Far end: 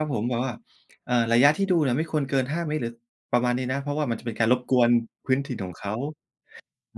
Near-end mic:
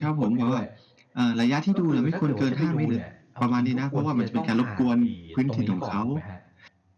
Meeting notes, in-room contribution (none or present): present